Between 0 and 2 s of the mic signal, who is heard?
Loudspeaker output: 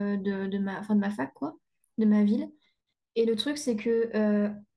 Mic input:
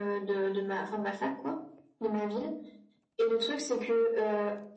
echo only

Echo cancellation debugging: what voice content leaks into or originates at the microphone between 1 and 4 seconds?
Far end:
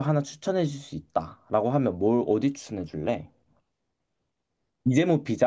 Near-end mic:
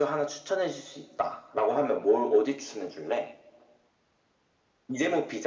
echo only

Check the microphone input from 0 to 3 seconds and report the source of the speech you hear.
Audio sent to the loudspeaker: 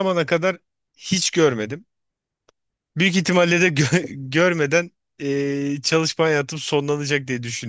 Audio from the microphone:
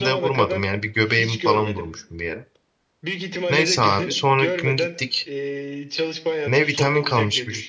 both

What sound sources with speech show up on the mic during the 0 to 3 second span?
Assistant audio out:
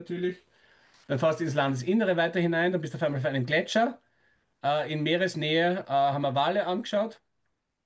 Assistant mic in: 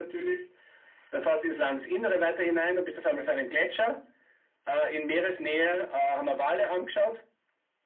echo only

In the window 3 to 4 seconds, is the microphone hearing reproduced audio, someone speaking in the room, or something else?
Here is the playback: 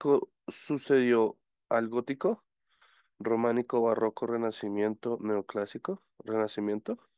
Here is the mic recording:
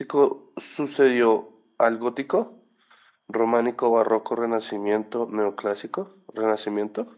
echo only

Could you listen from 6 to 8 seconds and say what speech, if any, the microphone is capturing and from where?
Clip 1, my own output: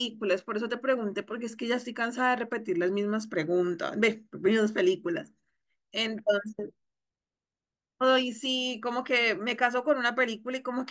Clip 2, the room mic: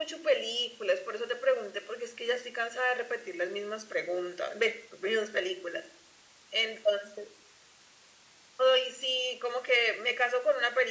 echo only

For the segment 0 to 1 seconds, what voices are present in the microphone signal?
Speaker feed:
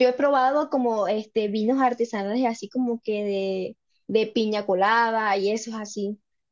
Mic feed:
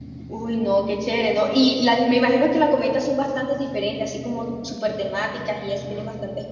user only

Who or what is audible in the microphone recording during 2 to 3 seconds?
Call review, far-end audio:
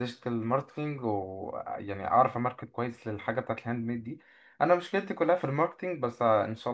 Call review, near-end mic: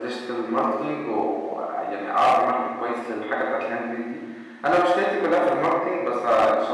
echo only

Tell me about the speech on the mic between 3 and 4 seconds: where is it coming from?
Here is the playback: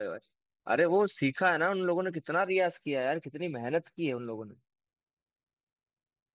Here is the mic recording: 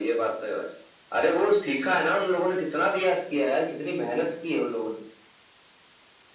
echo only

